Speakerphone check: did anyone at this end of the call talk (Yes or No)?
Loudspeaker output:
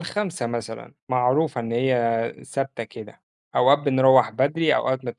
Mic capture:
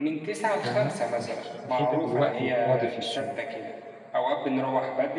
Yes